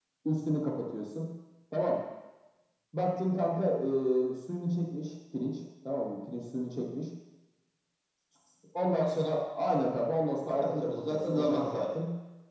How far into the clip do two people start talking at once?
10.4 s

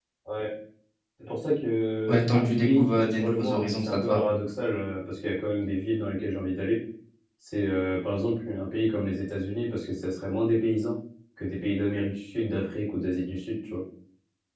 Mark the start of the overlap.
2.1 s

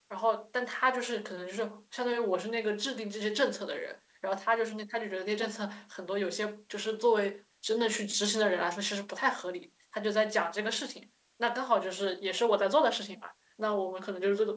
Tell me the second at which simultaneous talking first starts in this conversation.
none

